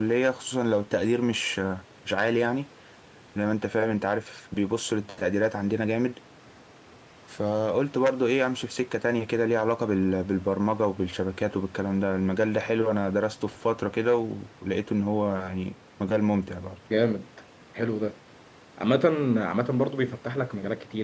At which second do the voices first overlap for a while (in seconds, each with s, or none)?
none